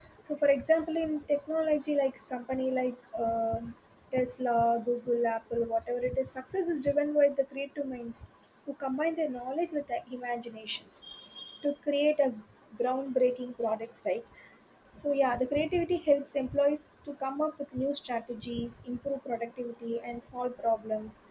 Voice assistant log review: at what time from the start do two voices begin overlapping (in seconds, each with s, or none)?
none